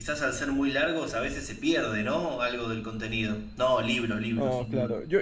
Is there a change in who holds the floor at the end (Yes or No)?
Yes